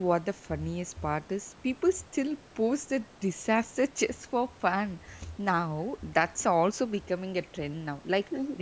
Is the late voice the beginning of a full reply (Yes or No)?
No